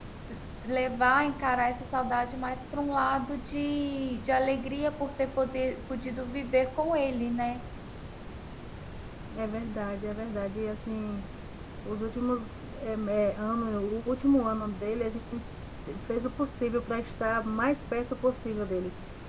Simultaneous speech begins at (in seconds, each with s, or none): none